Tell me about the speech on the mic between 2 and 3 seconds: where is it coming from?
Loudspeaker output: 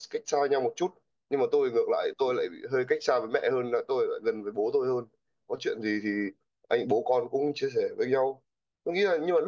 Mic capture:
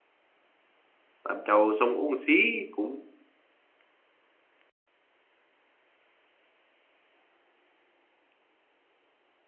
user only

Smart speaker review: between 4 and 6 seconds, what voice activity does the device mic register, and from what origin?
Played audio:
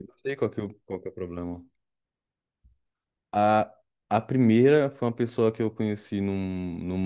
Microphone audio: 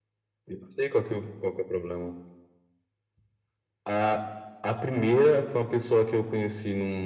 echo only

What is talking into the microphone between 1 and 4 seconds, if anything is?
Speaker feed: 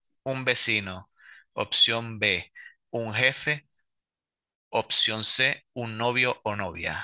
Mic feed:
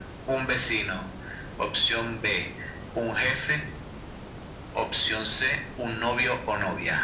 echo only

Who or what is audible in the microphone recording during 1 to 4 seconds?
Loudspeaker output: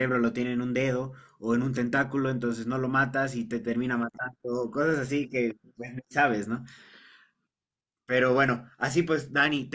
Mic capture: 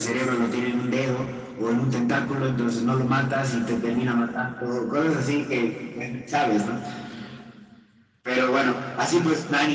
echo only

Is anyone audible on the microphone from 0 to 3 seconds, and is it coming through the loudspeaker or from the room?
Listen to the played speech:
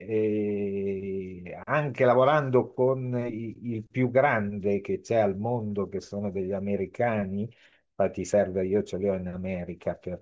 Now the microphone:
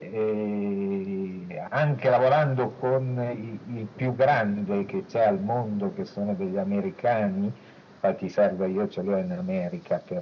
echo only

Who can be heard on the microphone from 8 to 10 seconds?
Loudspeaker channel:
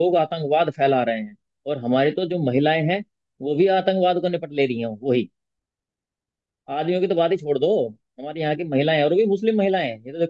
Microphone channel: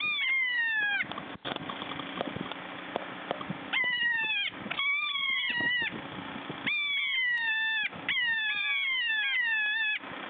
neither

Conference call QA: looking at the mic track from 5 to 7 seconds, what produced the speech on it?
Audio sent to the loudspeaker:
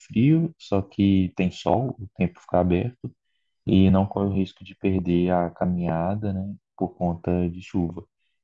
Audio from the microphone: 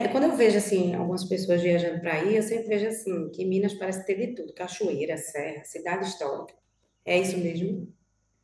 user only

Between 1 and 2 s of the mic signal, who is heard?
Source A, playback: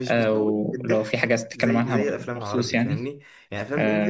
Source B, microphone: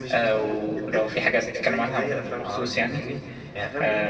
echo only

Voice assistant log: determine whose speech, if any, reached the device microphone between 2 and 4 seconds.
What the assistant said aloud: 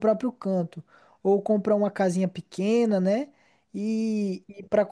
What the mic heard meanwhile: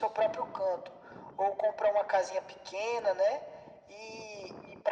echo only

